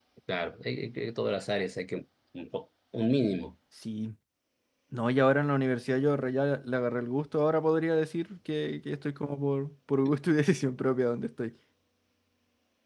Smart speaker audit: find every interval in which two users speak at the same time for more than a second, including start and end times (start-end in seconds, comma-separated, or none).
none